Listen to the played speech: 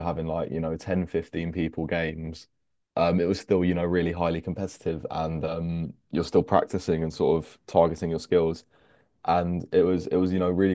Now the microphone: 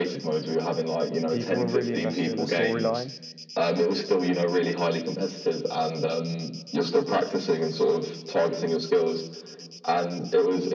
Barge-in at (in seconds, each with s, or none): 1.3 s